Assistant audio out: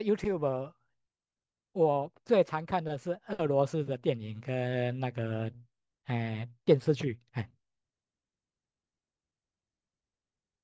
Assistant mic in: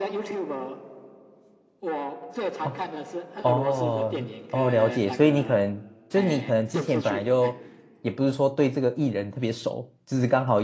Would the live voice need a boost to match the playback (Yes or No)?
No